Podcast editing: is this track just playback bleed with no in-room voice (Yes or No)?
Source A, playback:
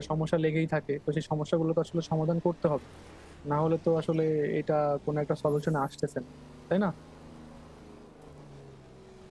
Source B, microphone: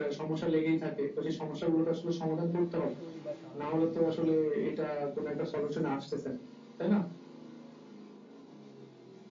No